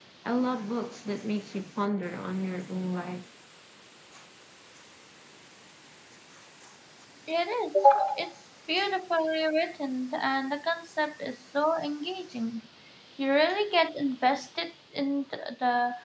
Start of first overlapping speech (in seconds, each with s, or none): none